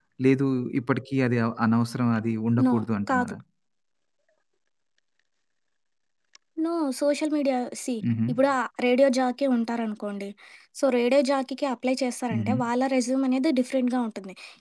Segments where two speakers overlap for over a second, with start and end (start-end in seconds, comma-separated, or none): none